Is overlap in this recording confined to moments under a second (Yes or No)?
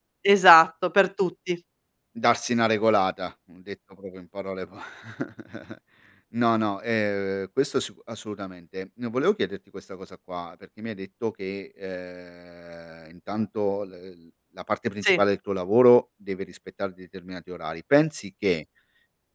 Yes